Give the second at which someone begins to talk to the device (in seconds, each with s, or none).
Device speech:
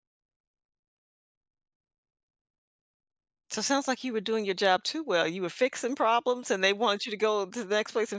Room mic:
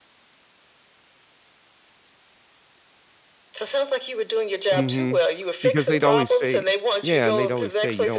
4.7 s